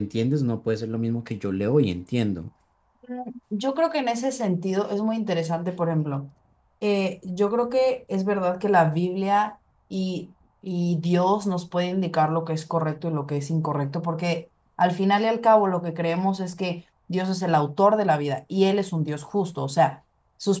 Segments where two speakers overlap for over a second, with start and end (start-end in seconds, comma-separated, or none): none